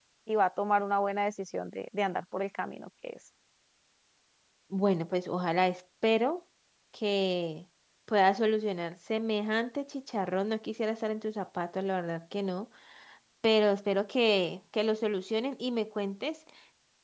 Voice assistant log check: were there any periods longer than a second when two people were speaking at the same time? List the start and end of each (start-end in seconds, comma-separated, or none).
none